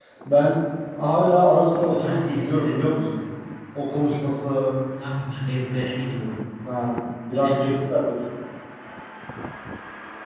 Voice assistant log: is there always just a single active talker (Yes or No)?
No